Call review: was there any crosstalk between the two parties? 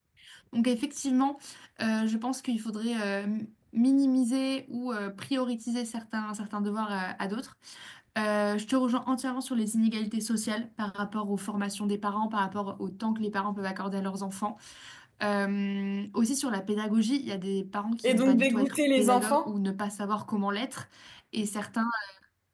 Yes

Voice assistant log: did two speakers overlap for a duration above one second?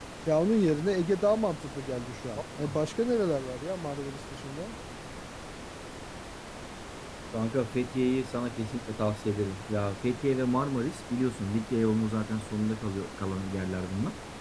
No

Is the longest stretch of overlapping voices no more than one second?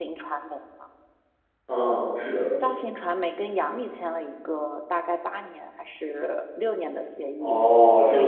Yes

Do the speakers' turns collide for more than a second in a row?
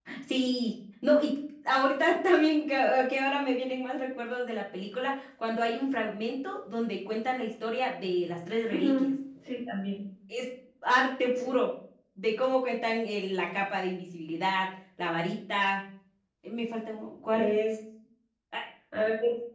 No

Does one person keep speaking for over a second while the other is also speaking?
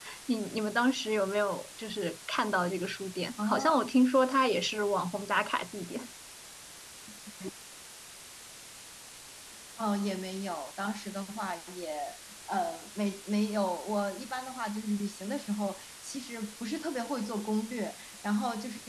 No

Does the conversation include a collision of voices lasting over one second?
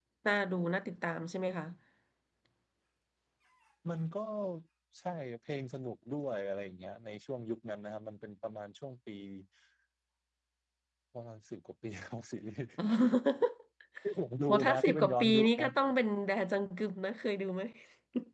Yes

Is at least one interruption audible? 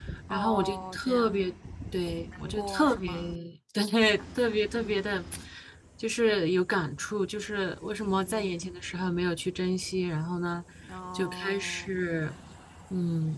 Yes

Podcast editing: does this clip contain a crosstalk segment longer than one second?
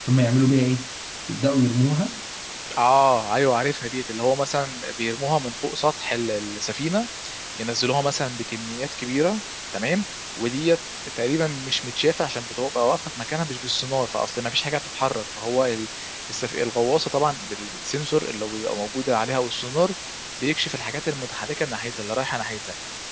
No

